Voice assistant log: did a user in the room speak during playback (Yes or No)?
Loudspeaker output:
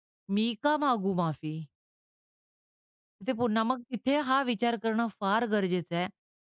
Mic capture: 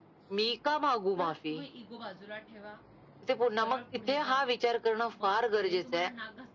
Yes